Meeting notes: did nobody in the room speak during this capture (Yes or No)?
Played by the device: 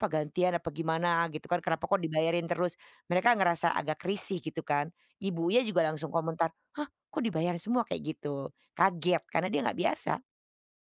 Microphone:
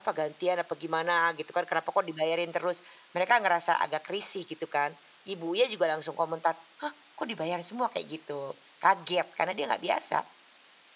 Yes